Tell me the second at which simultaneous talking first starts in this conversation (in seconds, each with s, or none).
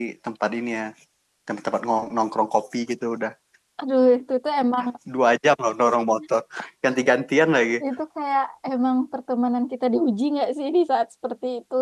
none